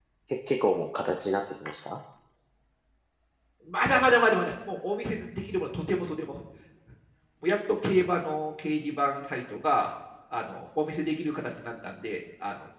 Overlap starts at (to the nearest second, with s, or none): none